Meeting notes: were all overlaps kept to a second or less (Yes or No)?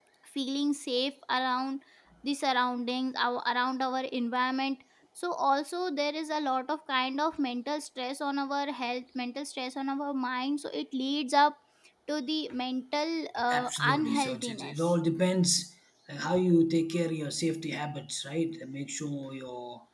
No